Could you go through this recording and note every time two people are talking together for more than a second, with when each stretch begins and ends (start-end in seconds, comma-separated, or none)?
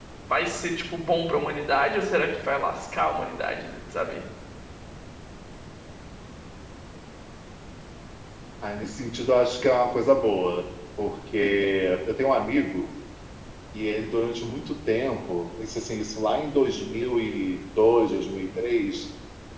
none